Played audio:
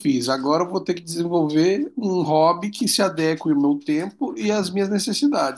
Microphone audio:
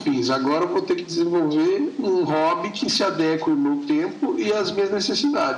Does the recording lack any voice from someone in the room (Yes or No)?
Yes